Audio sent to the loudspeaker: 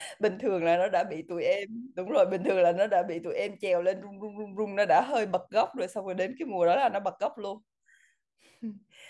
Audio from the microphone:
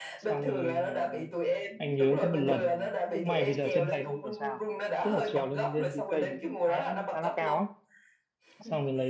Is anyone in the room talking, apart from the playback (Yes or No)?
Yes